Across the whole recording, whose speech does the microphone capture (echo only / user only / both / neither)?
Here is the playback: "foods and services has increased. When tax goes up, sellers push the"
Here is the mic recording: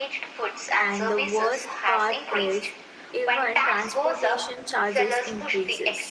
both